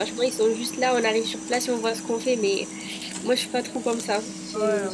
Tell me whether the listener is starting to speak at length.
Yes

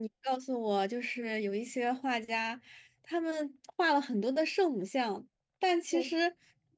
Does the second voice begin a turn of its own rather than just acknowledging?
No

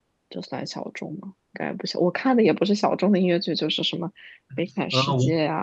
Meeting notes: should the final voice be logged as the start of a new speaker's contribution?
Yes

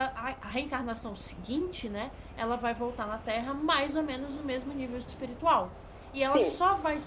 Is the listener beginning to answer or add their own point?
No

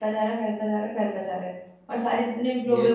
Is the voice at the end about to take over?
No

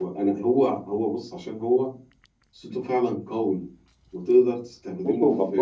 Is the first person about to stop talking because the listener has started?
No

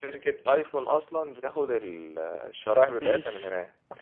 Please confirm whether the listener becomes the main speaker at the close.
Yes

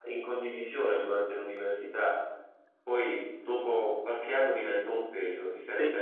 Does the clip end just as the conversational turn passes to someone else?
No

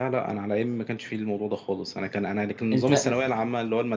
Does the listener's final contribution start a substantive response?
No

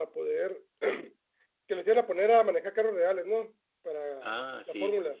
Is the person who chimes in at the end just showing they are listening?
No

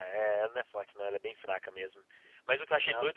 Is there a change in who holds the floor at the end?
No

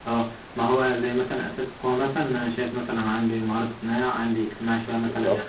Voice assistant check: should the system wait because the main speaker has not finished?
Yes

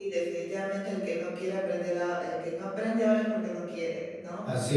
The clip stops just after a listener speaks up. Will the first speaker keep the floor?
Yes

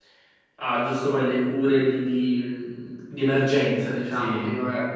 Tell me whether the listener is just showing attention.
Yes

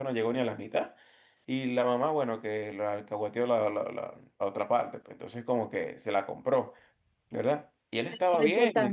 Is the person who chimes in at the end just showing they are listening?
No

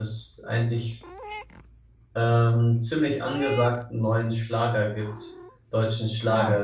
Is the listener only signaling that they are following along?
Yes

